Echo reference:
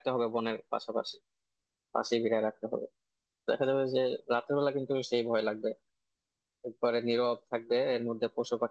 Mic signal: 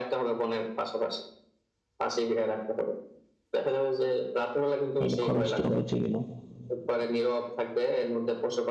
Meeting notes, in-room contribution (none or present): present